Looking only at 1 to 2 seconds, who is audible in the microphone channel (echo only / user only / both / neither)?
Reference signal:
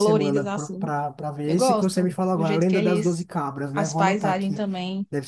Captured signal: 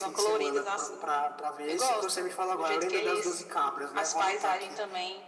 echo only